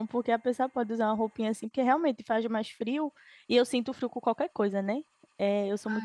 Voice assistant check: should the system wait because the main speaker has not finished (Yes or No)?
No